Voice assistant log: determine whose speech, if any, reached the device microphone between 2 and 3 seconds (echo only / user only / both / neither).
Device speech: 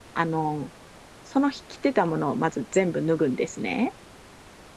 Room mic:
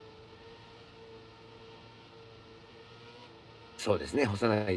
neither